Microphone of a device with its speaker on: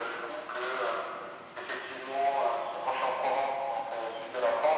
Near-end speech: none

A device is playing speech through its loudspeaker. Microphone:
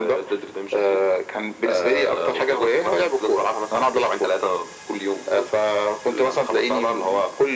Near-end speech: none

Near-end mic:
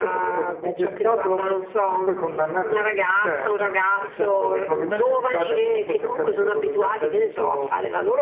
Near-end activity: present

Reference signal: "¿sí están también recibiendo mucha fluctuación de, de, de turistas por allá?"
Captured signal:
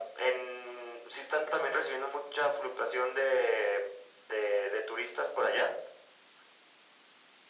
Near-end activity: none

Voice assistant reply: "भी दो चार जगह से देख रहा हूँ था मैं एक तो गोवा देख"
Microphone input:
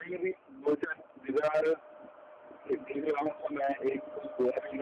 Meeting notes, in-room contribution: none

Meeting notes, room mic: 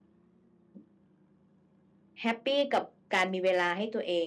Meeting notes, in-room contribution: none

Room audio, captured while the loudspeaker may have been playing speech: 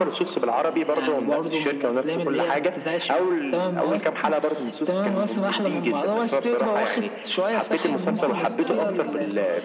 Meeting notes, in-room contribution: present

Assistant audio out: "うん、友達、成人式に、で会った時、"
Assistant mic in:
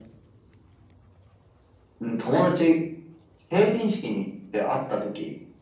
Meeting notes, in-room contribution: none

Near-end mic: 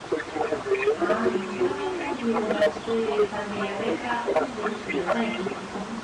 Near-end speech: present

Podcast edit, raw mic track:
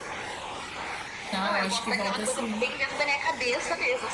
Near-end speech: present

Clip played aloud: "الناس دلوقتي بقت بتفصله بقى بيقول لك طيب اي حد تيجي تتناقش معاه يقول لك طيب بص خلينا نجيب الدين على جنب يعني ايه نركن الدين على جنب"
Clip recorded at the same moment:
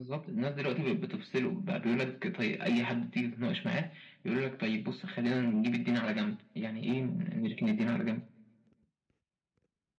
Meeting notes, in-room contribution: none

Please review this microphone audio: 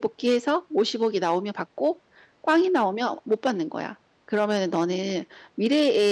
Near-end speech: present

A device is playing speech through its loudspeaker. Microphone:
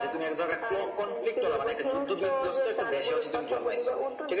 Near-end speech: none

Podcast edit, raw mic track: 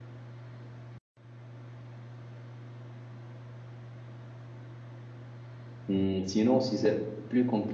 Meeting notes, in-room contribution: present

